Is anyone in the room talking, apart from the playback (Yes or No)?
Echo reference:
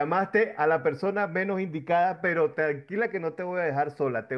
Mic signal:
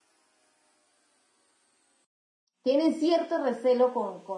Yes